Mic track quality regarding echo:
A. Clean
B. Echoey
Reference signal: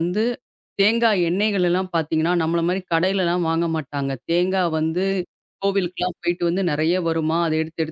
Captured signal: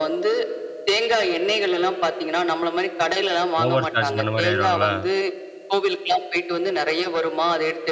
B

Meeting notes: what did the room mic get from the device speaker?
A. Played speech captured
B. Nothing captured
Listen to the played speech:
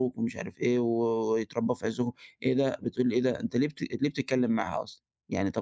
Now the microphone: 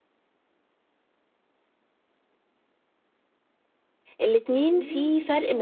B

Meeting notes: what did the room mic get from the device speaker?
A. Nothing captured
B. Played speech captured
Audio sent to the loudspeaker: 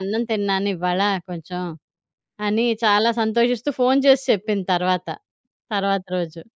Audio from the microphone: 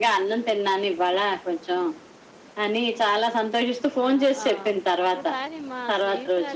B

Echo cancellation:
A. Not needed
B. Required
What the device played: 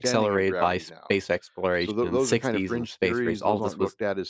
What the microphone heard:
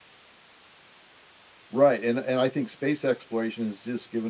A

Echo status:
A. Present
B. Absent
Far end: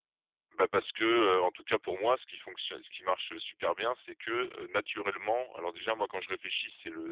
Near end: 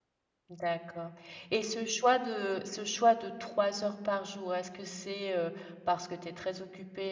B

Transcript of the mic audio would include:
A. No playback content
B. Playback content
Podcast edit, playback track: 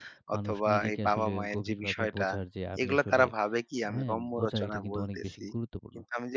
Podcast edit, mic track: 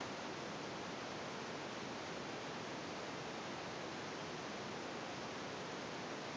A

